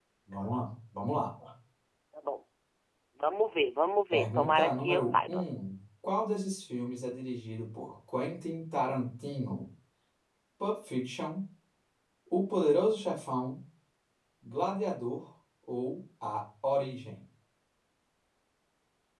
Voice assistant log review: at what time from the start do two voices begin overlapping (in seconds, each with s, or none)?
4.1 s